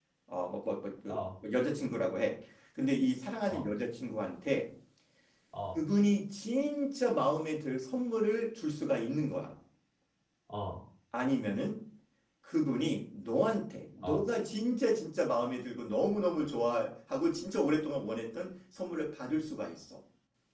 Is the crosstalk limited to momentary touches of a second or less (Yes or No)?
Yes